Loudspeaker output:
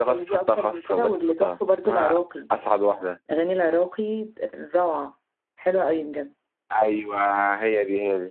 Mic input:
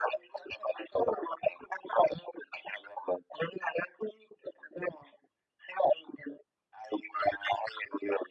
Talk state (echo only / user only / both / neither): echo only